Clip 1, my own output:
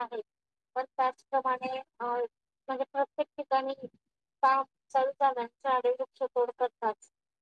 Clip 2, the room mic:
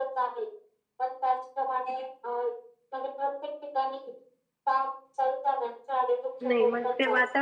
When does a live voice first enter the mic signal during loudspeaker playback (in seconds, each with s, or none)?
6.4 s